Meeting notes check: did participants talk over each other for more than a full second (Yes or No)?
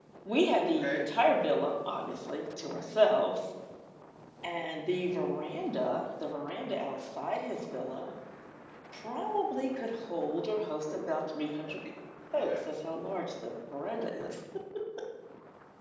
No